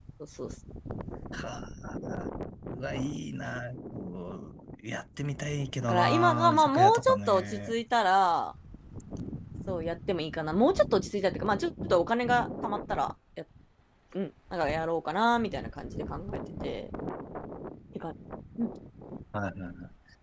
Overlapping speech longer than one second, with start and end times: 5.8-7.7

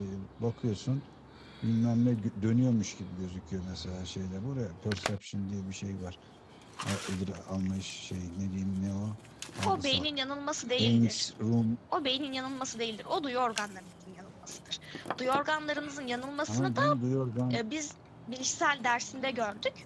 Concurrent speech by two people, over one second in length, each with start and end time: none

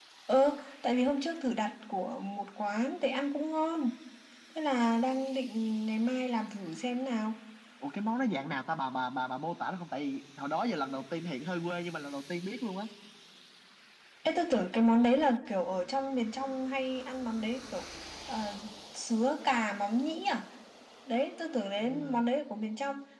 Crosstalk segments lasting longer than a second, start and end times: none

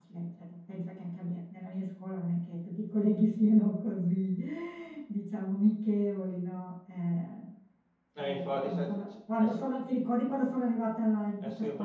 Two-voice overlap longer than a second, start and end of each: 8.2-9.6

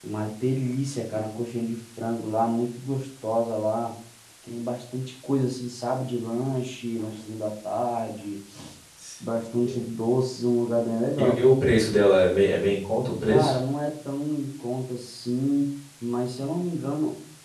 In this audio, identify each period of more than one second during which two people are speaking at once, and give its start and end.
none

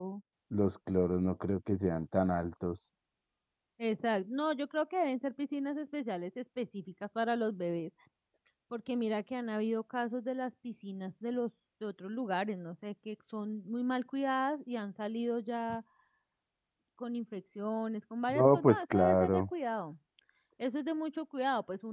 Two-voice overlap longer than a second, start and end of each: 18.3-19.5

